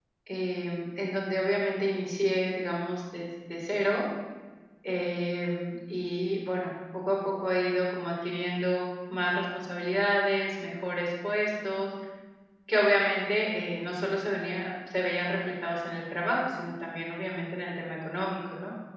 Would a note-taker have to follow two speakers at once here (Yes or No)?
No